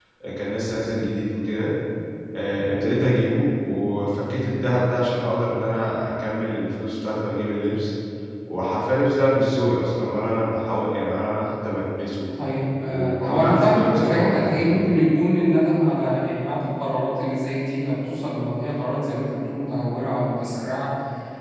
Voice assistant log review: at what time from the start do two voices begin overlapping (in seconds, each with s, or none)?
12.9 s